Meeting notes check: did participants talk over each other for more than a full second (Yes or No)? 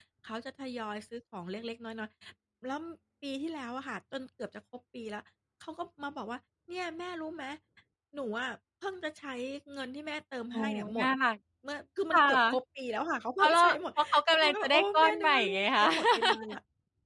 Yes